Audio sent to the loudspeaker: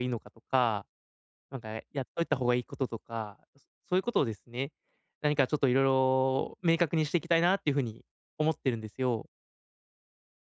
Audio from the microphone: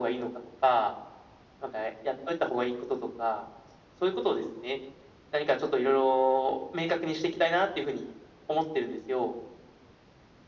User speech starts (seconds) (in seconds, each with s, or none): none